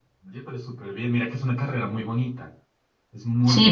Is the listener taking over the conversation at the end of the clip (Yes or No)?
Yes